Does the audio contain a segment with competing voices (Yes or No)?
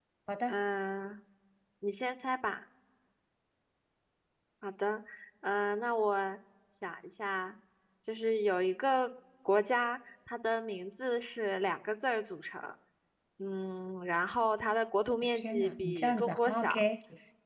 Yes